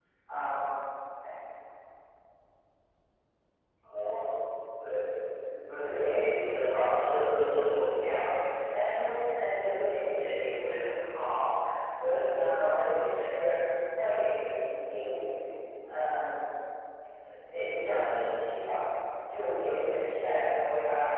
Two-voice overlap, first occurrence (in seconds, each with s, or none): 5.8 s